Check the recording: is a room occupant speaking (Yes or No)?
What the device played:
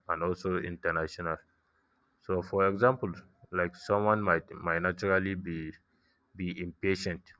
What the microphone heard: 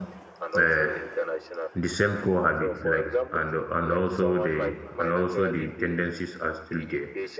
Yes